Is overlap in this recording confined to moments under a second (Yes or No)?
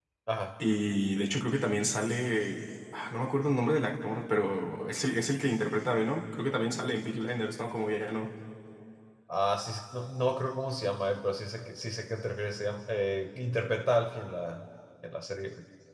Yes